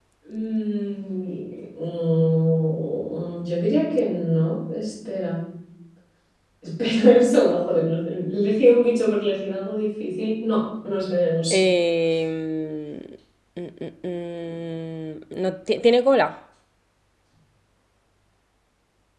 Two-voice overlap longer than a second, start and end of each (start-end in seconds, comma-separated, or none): none